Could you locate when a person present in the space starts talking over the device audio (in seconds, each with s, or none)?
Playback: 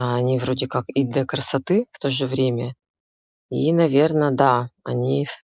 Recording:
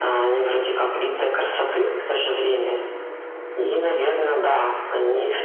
none